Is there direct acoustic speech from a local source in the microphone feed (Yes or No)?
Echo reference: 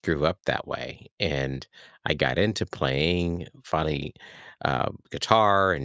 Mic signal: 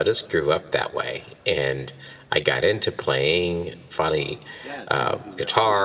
Yes